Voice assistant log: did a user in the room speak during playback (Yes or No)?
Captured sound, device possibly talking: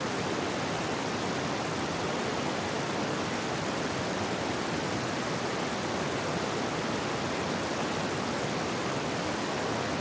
No